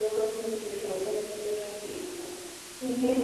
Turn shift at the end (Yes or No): No